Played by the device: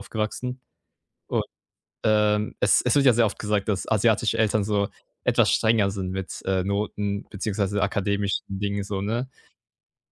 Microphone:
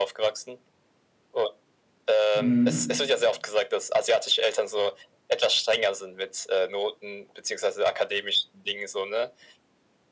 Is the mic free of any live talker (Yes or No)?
No